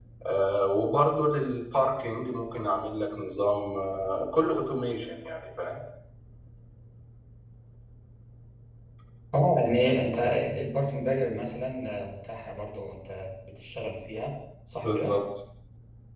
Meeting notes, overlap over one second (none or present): none